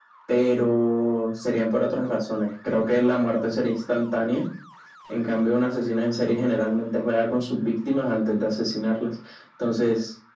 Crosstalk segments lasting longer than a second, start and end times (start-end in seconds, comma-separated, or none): none